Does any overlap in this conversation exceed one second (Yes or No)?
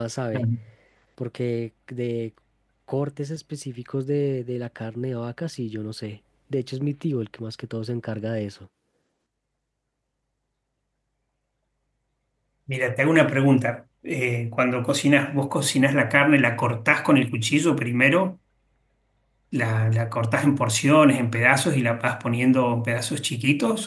No